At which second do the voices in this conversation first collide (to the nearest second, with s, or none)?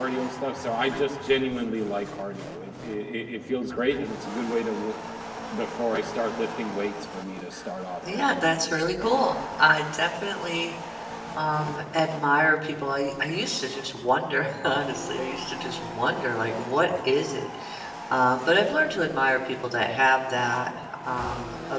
8 s